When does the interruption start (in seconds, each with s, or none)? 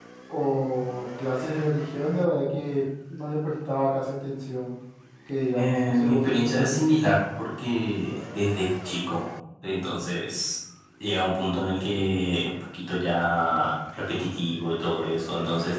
5.5 s